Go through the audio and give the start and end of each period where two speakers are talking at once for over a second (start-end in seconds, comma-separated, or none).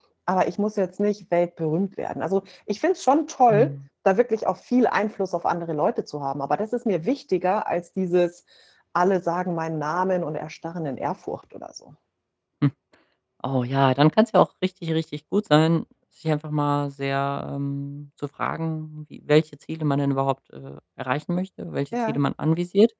none